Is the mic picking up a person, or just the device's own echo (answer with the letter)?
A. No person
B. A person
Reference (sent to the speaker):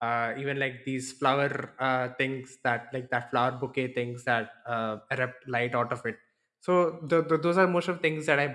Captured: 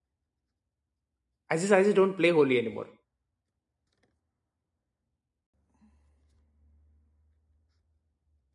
B